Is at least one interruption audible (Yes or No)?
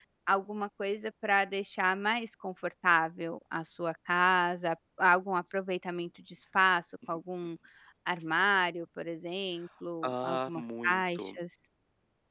Yes